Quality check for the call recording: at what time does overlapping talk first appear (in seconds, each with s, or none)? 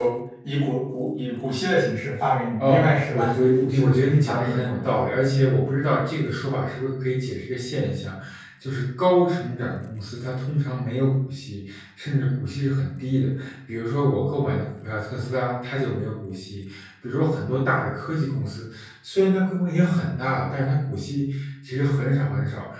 2.6 s